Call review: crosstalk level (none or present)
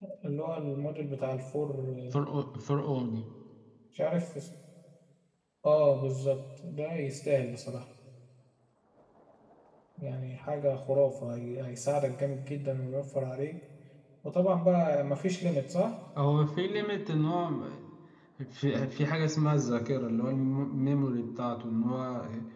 none